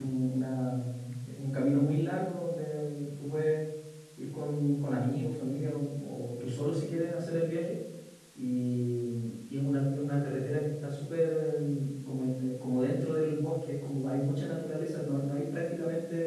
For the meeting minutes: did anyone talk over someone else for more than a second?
No

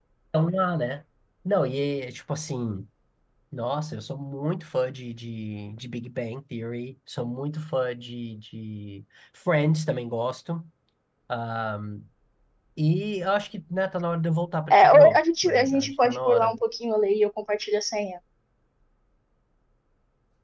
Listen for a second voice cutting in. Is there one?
Yes, from 14.7 s

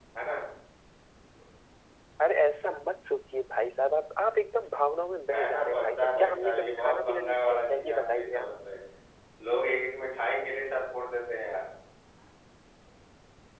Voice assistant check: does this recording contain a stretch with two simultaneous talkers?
Yes, from 5.3 s

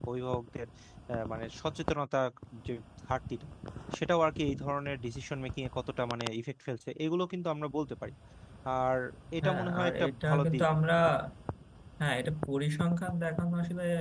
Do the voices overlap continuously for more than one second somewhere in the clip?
Yes, from 9.4 s

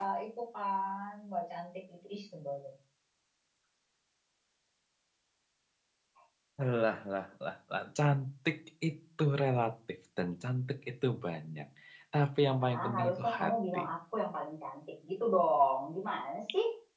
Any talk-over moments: Yes, from 12.5 s

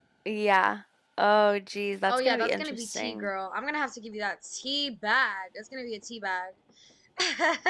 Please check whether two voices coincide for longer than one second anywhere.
Yes, from 2.1 s

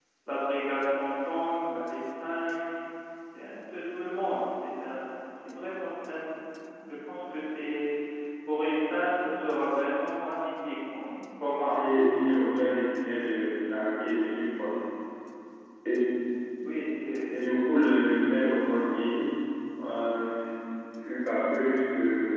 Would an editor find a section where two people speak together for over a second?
No

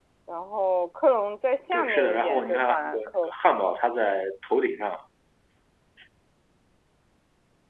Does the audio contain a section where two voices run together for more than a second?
Yes, from 1.7 s

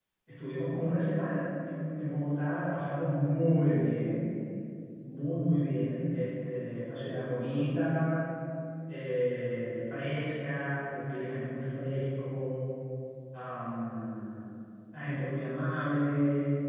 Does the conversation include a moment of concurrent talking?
No

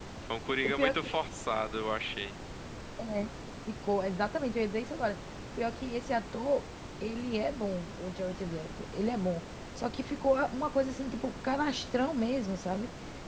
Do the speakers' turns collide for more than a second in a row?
No

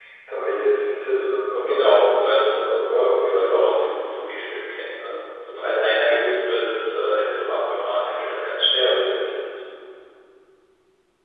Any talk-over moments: Yes, from 1.4 s

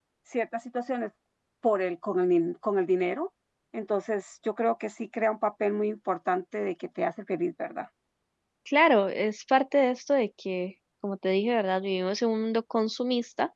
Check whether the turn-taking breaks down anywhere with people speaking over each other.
No

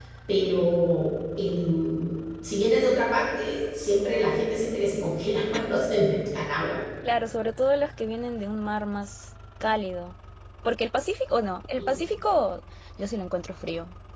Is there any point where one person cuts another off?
No

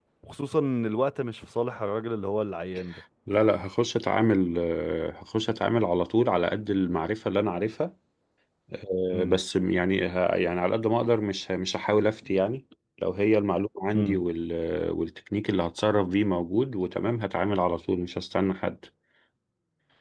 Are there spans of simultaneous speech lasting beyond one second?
No

